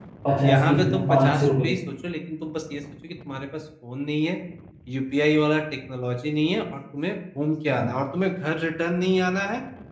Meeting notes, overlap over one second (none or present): present